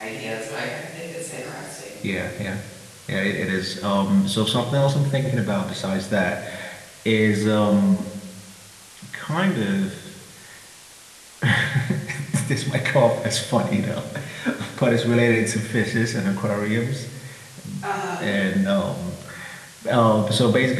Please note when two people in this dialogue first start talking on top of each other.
none

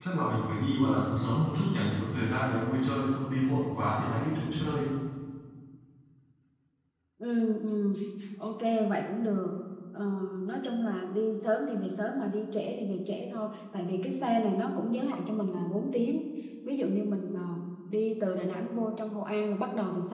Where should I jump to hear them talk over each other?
none

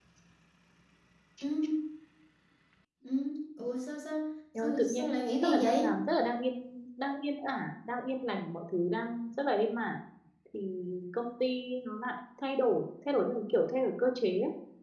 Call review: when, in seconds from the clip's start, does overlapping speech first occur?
5 s

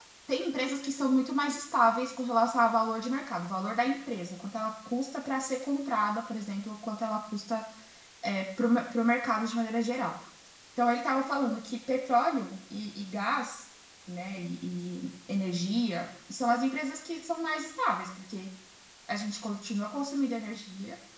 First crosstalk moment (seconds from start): none

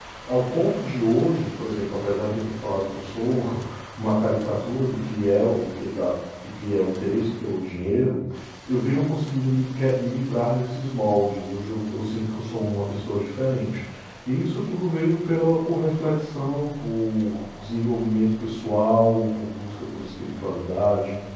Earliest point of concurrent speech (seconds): none

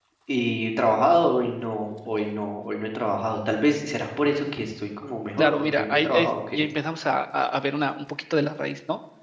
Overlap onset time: 5 s

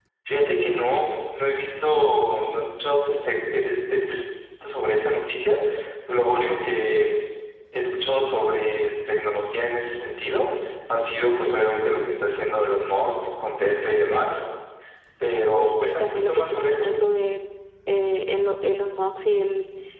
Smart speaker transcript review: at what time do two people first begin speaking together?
15 s

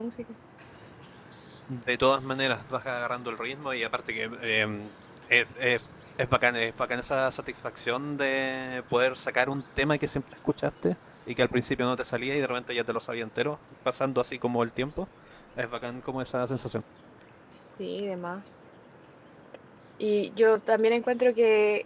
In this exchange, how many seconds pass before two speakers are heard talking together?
none

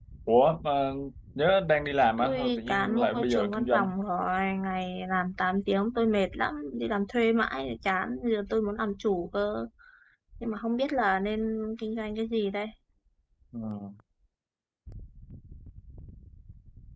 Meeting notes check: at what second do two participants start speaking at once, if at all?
2 s

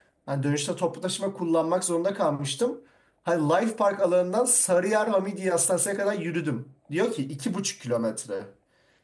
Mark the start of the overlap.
none

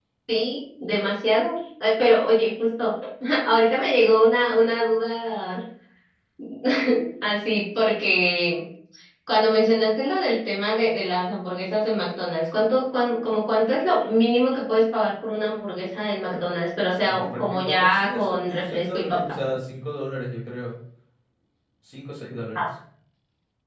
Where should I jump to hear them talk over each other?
17 s

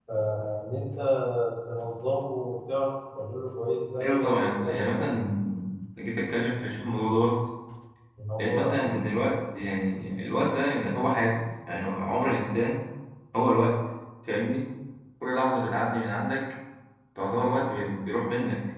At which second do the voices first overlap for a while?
4 s

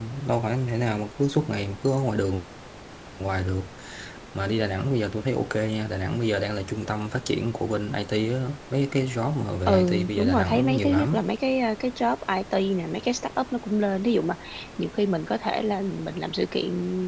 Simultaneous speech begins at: 10 s

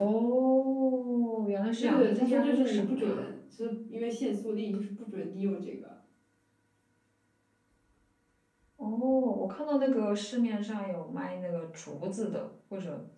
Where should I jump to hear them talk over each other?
2 s

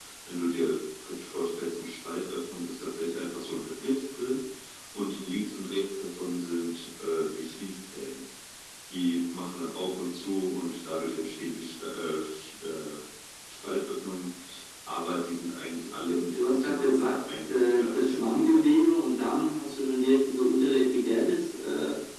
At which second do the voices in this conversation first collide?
16 s

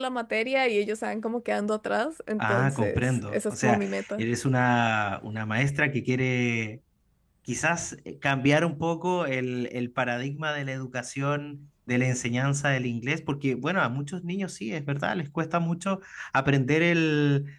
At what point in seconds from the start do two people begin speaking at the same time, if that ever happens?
2 s

